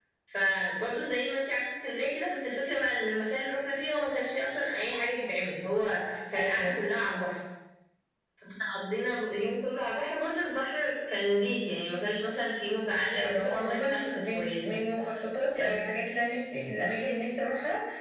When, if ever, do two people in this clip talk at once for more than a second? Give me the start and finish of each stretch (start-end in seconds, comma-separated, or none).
13.1-14.8